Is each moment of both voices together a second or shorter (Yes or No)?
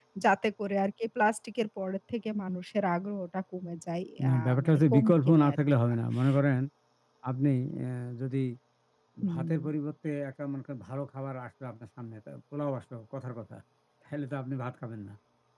No